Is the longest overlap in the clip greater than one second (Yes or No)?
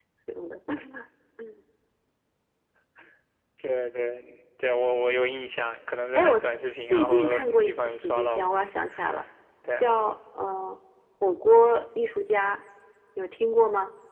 Yes